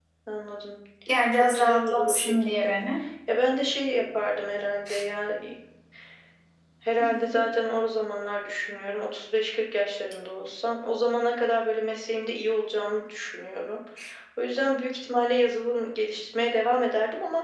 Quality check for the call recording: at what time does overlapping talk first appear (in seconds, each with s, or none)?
1.3 s